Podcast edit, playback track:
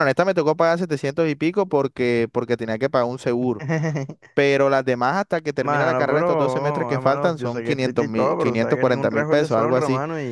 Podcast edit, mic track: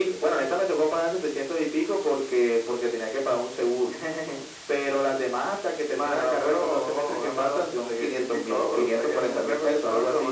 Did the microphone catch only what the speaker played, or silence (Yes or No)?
Yes